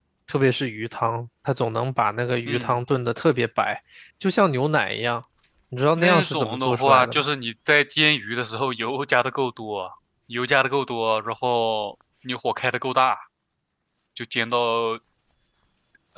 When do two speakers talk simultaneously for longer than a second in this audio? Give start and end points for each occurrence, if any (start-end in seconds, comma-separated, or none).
6.0-7.2